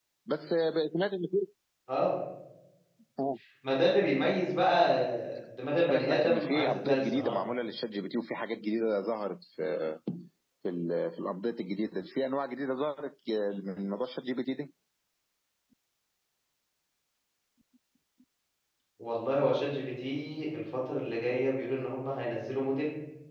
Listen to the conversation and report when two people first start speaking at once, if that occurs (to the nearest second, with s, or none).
6 s